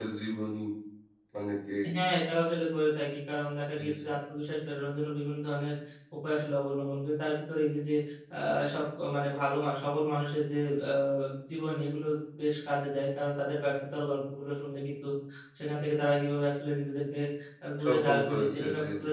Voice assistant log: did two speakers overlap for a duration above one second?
Yes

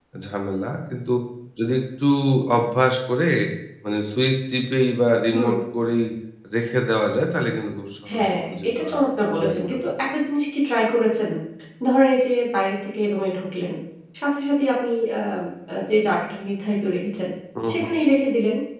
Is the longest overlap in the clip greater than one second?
Yes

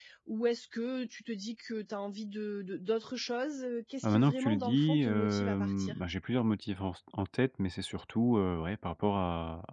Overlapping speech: Yes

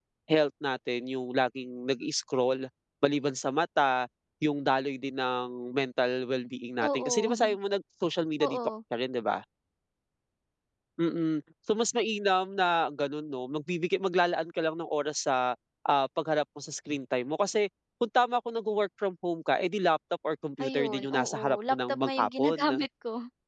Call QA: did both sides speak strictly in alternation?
No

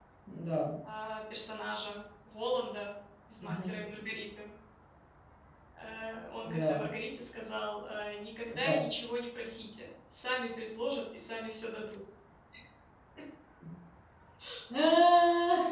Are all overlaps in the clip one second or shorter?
Yes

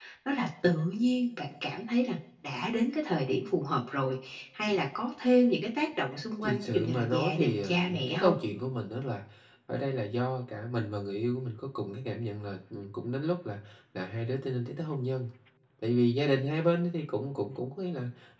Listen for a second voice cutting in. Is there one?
Yes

